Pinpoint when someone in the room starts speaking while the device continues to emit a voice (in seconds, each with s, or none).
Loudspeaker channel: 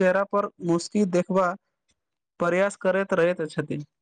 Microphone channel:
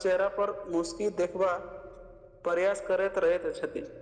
none